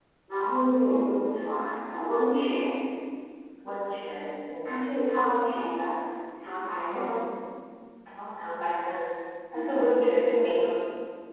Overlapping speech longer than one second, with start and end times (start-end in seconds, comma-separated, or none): none